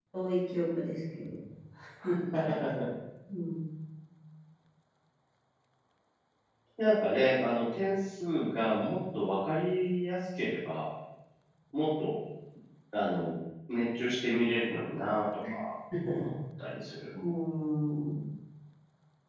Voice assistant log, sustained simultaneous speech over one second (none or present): none